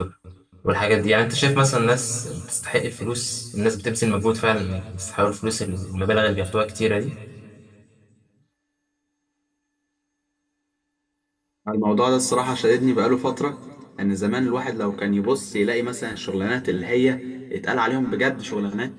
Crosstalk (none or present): none